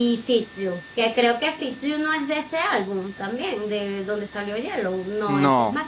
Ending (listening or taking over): taking over